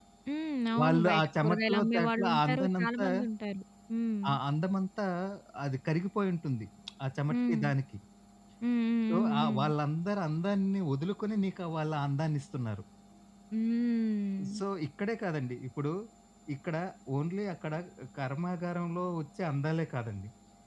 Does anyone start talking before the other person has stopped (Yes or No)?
Yes